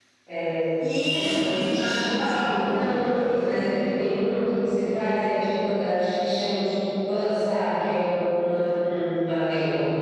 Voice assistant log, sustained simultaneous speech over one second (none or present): none